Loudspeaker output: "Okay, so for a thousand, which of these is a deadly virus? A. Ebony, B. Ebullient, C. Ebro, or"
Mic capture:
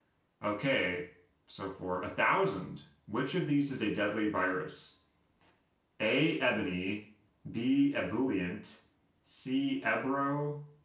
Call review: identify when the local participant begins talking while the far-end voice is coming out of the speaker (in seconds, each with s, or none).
none